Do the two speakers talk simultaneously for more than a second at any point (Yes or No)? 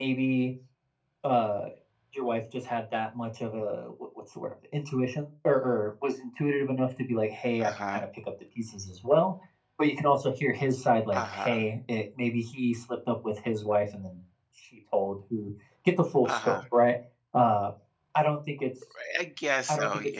No